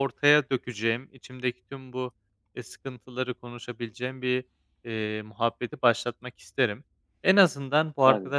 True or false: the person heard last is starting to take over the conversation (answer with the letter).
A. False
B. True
A